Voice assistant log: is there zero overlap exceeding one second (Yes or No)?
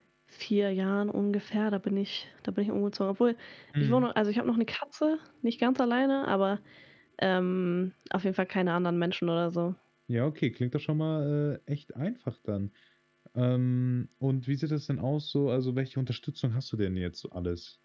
Yes